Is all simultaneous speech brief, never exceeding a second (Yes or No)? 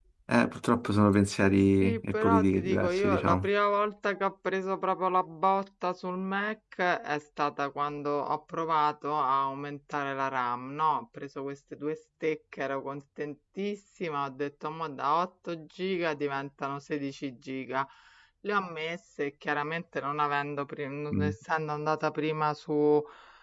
No